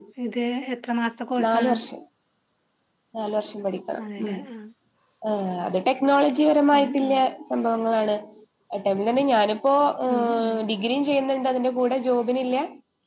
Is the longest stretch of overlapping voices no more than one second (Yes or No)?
Yes